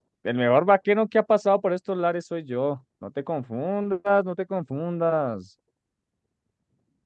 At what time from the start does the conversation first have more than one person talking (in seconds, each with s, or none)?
none